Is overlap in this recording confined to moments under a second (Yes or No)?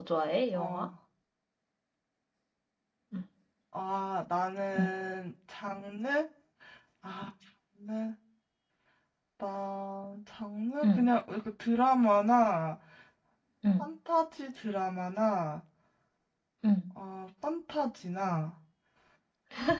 Yes